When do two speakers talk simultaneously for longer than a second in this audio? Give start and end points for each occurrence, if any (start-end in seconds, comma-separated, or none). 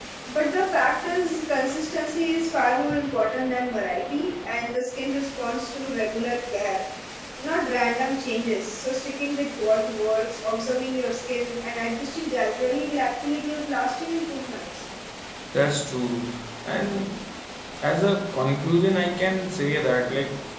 none